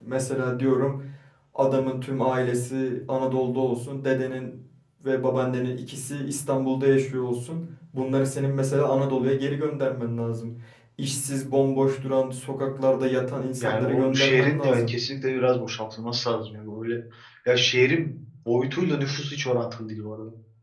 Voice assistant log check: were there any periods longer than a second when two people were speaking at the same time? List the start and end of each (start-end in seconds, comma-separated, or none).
13.6-14.9